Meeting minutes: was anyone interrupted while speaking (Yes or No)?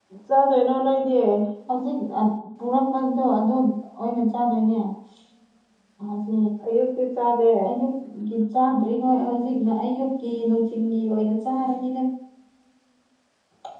No